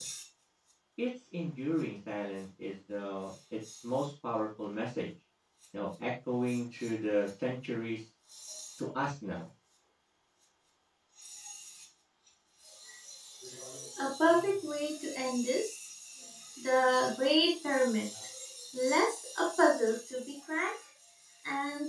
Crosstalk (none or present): none